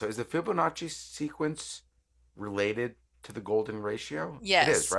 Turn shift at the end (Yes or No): Yes